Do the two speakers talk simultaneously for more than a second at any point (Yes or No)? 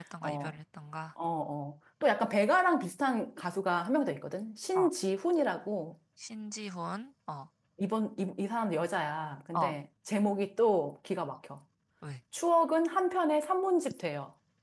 No